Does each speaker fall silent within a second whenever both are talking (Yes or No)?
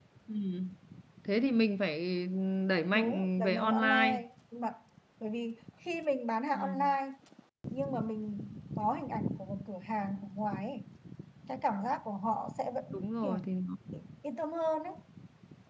No